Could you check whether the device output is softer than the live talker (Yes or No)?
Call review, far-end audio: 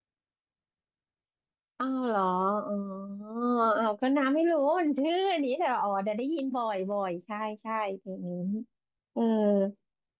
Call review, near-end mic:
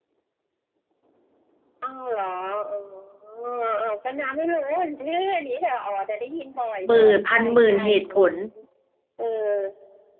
Yes